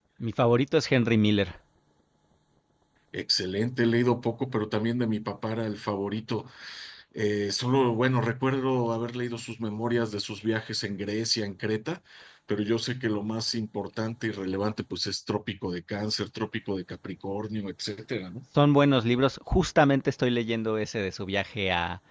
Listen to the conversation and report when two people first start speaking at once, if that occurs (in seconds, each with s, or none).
none